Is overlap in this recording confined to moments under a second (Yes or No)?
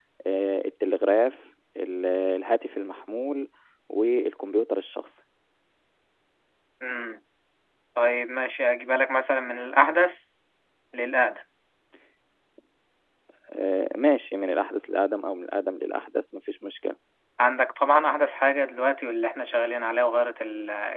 Yes